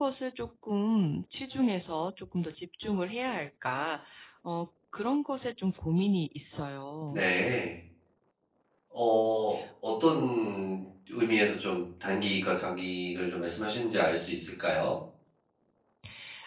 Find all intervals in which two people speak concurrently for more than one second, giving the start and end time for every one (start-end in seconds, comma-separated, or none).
none